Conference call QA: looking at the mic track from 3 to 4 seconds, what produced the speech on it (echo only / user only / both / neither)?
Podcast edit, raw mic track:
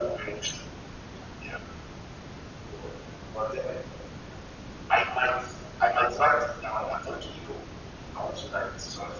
echo only